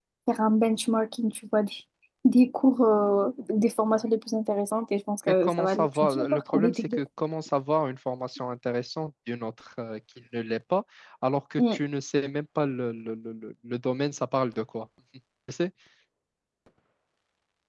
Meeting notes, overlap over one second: present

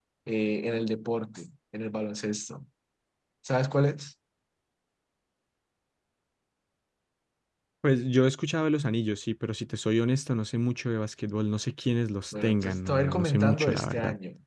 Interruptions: present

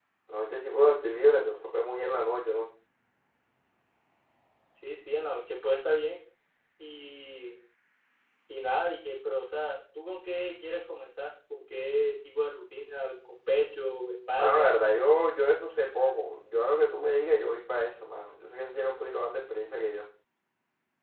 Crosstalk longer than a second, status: none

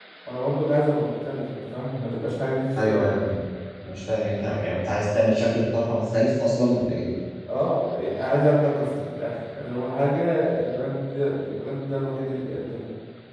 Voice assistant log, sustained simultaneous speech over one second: none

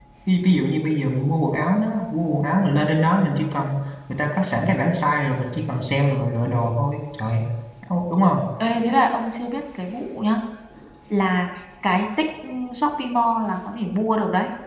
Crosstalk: none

